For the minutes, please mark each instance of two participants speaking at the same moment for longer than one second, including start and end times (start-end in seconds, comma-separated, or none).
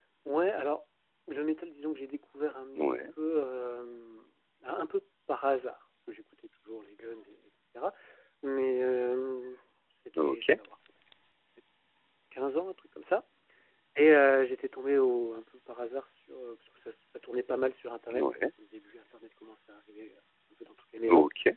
none